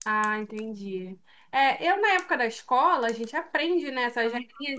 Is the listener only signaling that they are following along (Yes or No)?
Yes